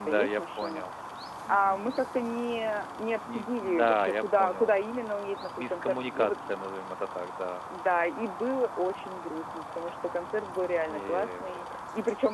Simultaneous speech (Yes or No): Yes